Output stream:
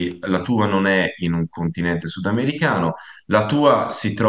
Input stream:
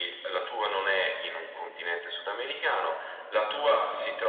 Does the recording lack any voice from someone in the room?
Yes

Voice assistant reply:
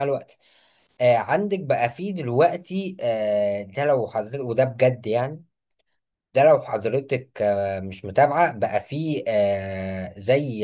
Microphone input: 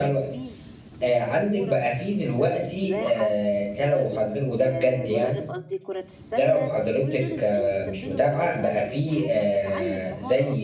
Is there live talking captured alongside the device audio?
Yes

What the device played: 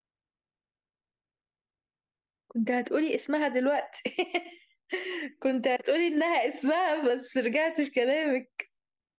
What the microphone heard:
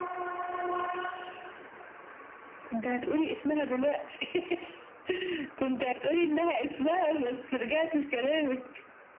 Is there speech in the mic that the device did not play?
No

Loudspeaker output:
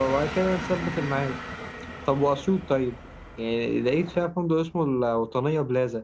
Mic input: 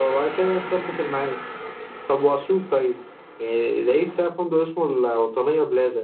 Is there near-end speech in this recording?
No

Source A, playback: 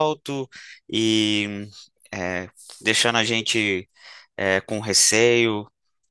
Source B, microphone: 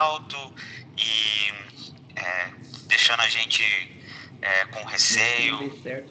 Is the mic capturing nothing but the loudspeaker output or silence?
No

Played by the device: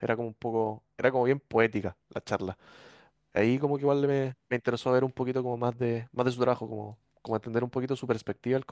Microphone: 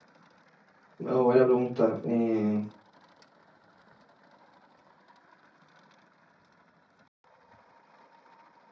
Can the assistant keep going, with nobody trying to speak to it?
No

